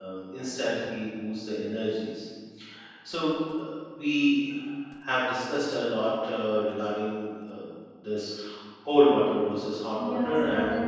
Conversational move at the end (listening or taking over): taking over